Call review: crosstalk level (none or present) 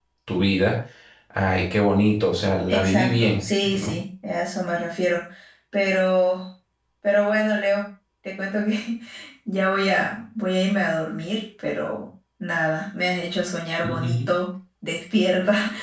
present